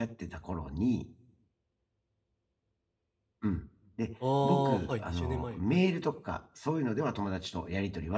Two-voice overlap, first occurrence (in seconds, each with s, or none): 4.2 s